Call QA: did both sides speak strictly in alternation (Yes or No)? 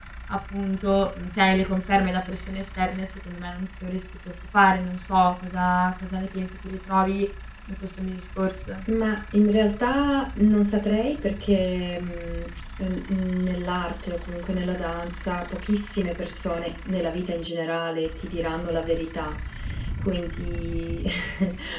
Yes